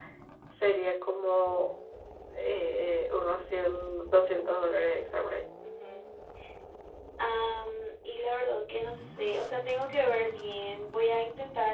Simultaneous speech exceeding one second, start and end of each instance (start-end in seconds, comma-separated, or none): none